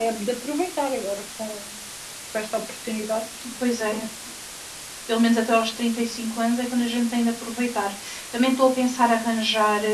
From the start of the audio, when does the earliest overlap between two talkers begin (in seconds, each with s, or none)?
none